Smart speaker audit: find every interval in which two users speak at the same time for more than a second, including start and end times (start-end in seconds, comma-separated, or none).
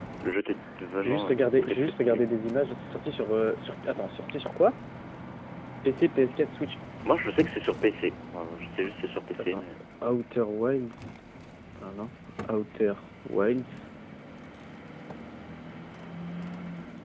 1.0-2.2